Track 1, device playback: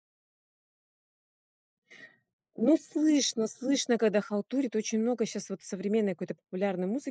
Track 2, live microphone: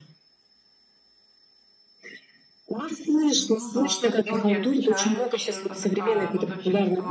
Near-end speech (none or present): present